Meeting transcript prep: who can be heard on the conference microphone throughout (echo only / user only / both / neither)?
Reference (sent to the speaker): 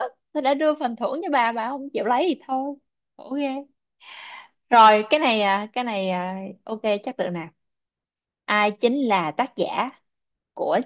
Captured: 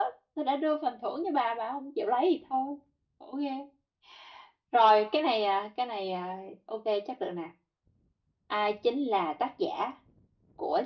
echo only